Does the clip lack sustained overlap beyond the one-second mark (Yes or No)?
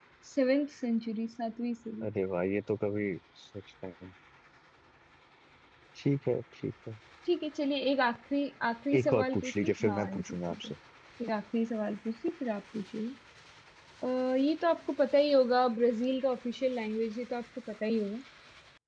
No